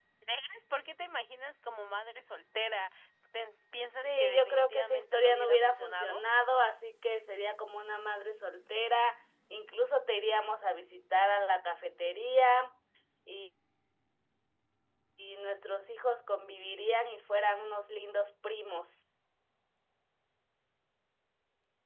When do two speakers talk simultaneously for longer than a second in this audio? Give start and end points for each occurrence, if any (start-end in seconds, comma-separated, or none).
4.0-6.2